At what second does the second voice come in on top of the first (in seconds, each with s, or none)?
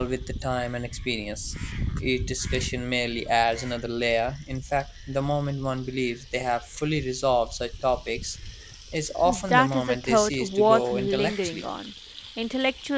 9.2 s